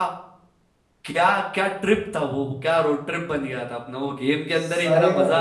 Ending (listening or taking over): taking over